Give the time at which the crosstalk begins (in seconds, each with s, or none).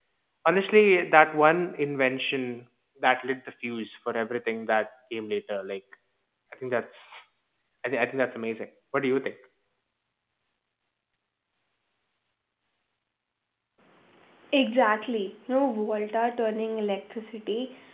none